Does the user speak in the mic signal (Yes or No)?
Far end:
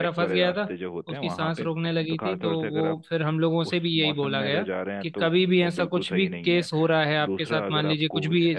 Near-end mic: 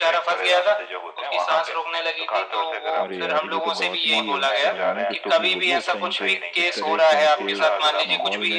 Yes